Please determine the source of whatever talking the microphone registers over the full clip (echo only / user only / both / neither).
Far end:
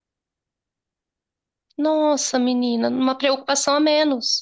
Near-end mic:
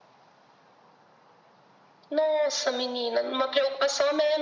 echo only